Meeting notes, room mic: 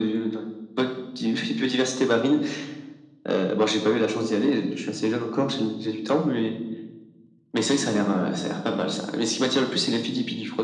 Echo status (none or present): present